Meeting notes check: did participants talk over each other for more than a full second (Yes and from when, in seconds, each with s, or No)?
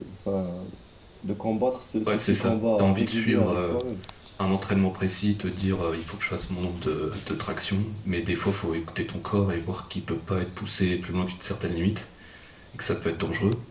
Yes, from 2.1 s